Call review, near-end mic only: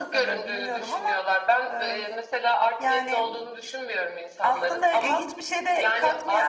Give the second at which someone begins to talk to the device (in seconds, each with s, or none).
none